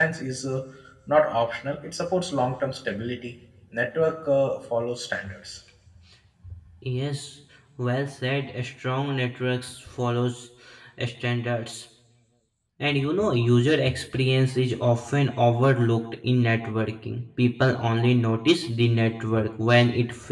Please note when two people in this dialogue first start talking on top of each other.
none

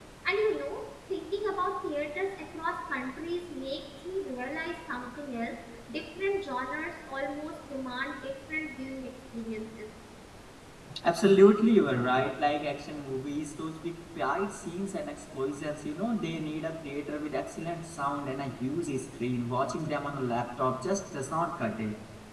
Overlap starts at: none

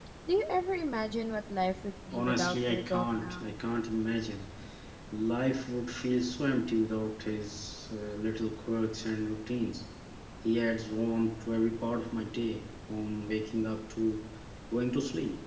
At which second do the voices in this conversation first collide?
2 s

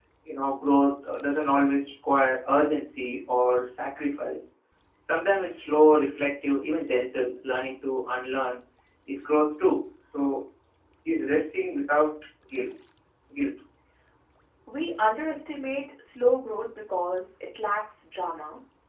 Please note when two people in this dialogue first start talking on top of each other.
none

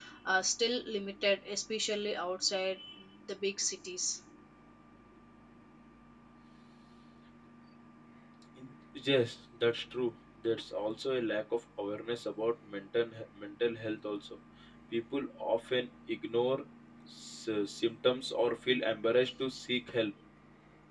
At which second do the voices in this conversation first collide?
none

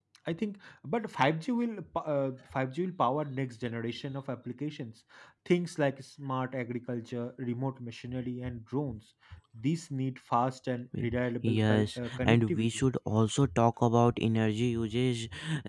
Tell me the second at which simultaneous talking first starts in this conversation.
11 s

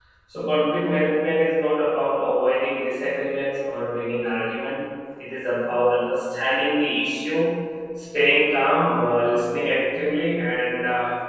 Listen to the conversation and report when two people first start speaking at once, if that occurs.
none

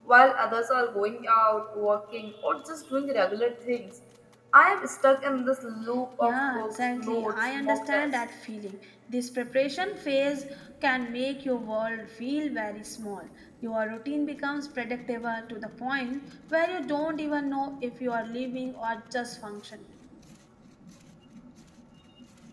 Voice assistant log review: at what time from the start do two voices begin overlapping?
6 s

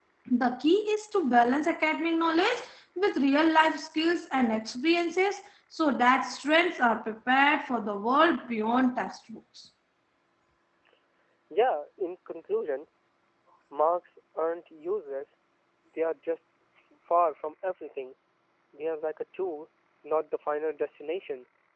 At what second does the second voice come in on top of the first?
none

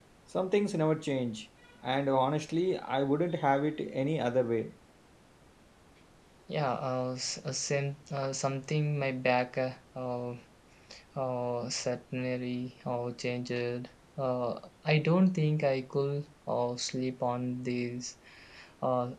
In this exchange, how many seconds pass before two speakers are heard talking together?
none

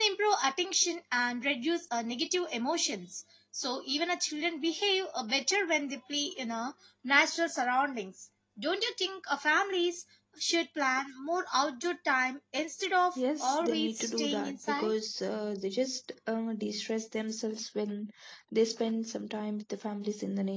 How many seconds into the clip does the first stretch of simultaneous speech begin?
13 s

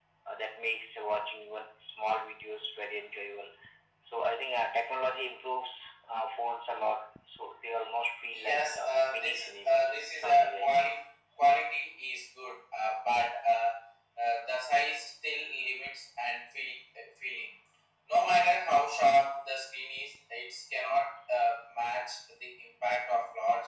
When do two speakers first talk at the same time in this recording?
8 s

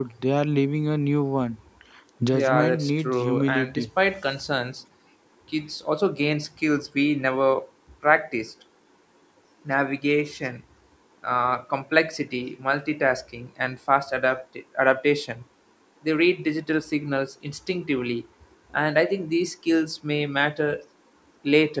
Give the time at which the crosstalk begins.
2 s

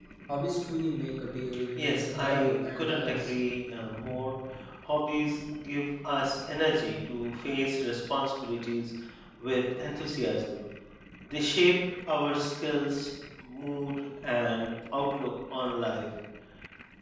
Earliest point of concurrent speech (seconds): 2 s

